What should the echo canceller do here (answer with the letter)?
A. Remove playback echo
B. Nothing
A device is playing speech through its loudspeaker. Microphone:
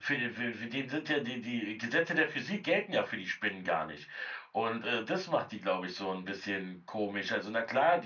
B